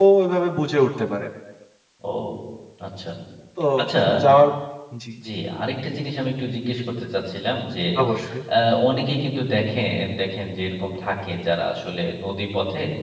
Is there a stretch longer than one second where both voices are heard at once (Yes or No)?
No